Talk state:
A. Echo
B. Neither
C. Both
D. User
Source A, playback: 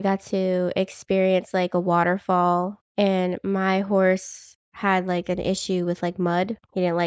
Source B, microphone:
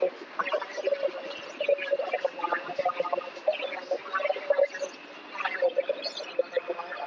A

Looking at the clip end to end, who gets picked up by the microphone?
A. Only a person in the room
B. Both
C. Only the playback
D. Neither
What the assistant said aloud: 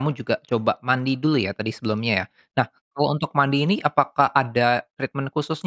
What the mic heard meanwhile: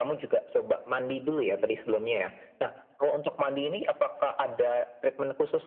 C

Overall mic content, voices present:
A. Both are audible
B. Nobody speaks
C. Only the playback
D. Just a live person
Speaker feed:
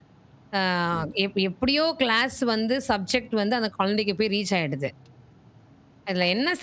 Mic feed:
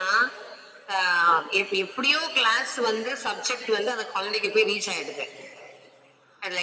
C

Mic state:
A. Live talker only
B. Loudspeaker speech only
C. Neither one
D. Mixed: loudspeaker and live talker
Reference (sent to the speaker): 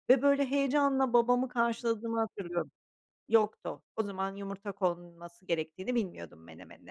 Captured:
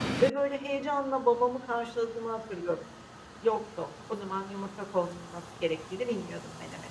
B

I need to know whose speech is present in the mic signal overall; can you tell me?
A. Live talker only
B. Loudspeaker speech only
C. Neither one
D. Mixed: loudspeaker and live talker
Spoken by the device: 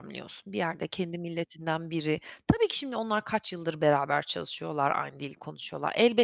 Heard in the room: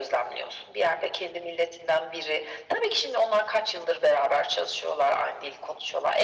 B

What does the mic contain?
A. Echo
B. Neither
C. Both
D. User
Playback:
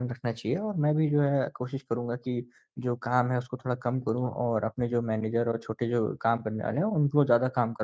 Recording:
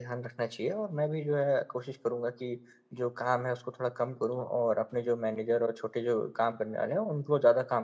A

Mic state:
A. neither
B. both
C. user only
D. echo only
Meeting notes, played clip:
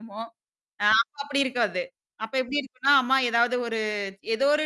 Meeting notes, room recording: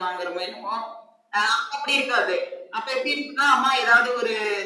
D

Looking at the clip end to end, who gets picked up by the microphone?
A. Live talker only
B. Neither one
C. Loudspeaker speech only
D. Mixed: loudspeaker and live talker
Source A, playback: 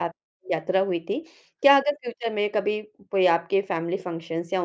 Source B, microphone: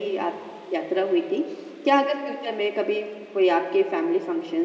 C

